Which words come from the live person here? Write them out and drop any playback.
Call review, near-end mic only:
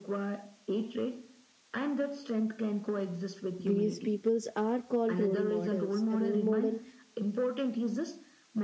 These peoples are called role models. A role model

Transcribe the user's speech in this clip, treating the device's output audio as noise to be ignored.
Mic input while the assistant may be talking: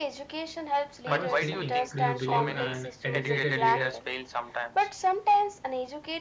I was thinking, do you believe an educated leader

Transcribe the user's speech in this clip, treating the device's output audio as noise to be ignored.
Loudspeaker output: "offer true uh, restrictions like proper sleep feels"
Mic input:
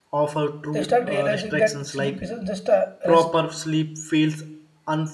They start realizing that sleep isn't just a rest

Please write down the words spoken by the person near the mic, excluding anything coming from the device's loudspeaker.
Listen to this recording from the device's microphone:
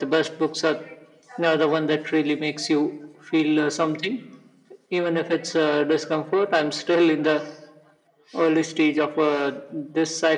none

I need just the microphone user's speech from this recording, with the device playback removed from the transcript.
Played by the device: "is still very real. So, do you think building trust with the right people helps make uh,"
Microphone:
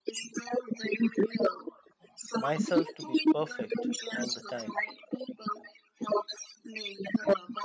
myself to be perfect all the time.

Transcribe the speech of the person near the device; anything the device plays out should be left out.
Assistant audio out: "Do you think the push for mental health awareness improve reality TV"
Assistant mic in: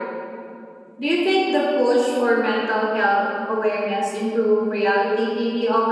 none

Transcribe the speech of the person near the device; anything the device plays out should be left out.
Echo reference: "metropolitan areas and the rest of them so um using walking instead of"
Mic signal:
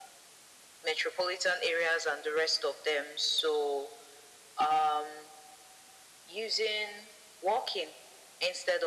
none

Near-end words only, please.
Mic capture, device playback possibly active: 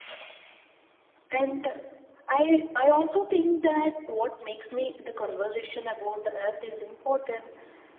none

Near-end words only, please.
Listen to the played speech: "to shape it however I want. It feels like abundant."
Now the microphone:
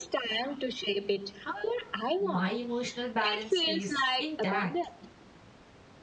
My emotional balance stays intact.

